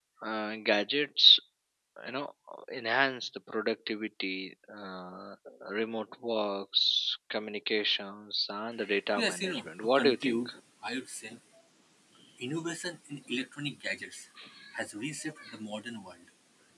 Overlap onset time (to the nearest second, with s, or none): 9 s